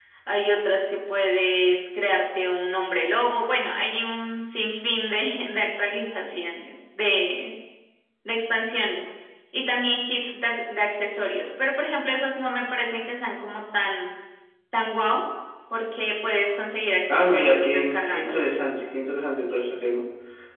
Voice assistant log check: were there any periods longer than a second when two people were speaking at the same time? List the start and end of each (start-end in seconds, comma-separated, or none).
17.1-18.6